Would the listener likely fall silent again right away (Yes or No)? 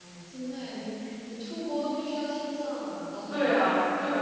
No